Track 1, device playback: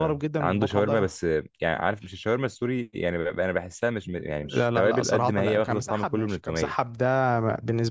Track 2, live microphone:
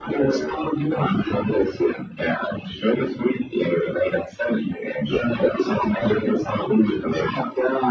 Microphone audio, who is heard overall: echo only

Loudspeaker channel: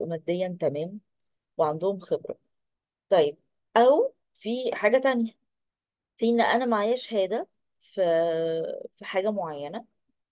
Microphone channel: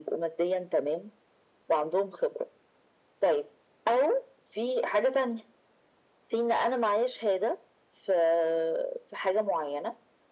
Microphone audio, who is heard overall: echo only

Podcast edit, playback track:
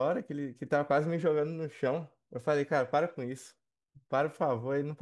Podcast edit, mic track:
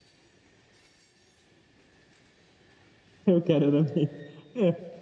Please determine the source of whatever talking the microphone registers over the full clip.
user only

